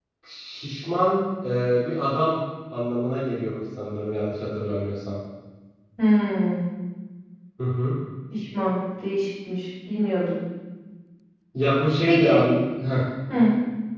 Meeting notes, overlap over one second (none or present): none